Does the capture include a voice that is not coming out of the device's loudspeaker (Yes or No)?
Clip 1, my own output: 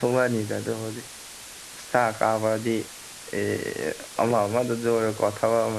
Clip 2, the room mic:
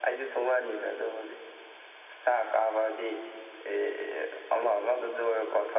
No